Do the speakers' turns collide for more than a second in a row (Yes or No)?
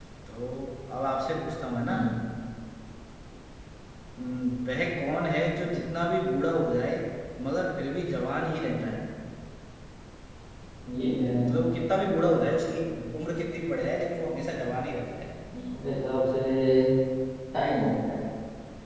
No